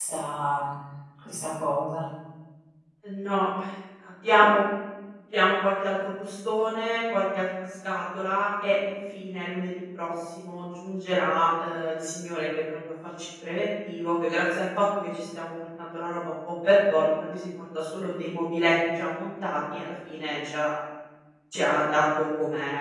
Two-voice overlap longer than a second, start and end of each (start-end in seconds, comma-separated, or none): none